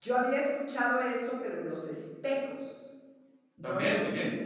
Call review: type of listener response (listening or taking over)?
taking over